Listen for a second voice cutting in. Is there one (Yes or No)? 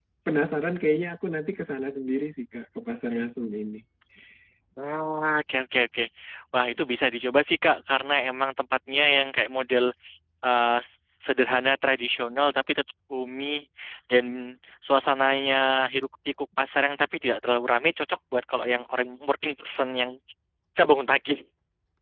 No